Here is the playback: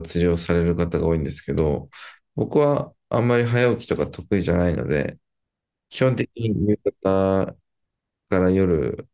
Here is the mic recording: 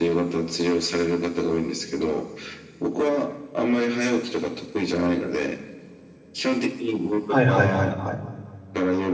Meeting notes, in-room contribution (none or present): present